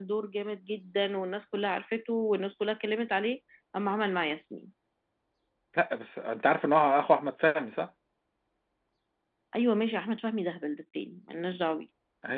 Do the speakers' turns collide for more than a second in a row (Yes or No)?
No